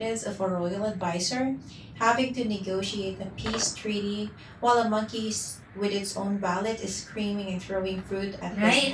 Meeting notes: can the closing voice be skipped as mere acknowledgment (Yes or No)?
No